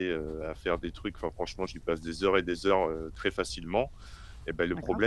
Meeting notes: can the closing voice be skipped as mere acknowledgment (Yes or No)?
Yes